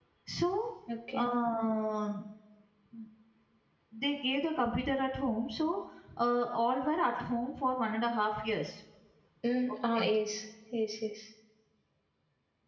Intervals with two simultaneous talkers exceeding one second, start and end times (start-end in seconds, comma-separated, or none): none